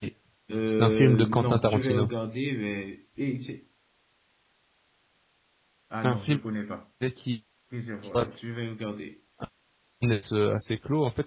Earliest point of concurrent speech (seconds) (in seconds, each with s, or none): 0.8 s